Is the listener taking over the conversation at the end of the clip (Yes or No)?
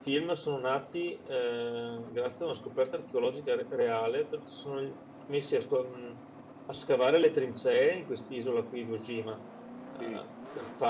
No